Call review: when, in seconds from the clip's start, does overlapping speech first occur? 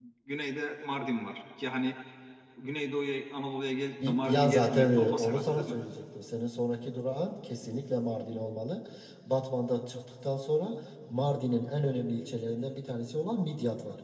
4.0 s

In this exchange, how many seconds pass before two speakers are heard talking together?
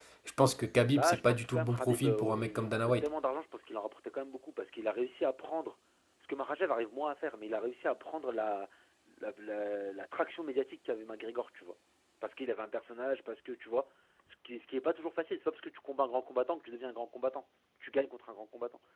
0.9 s

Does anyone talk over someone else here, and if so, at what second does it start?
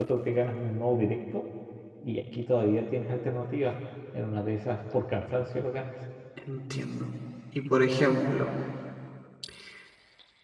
none

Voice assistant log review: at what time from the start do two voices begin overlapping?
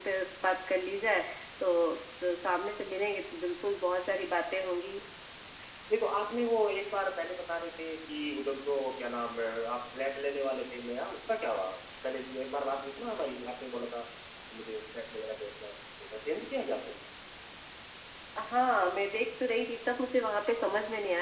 none

